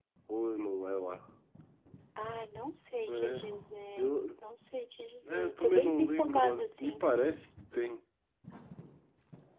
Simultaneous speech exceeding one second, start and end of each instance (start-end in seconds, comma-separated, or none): 5.3-7.1